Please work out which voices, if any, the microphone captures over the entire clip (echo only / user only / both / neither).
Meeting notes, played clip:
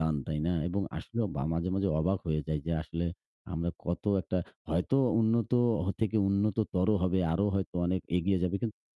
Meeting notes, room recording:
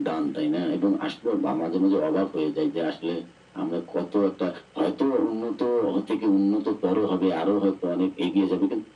echo only